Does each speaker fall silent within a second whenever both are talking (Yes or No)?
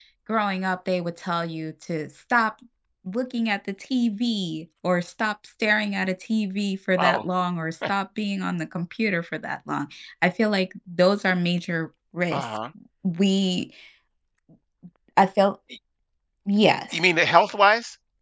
Yes